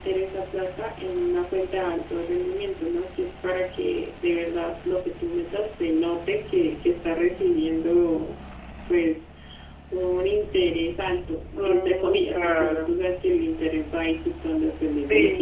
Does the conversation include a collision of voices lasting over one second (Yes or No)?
Yes